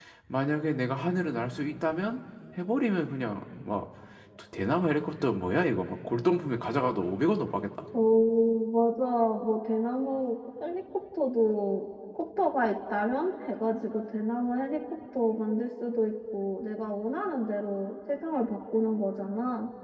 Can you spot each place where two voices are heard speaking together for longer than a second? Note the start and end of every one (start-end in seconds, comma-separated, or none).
none